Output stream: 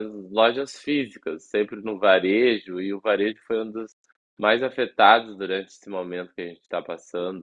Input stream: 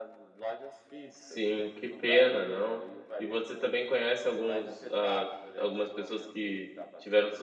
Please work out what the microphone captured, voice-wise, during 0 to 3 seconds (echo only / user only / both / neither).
both